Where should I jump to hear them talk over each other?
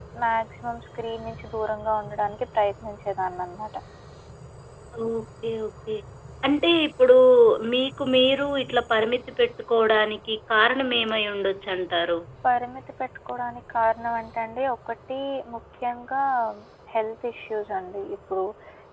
none

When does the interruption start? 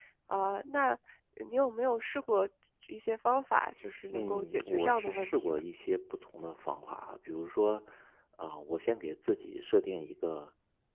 4.1 s

